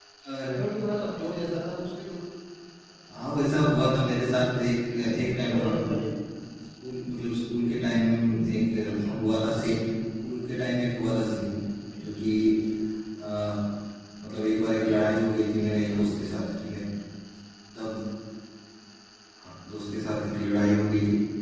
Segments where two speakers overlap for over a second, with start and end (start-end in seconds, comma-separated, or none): none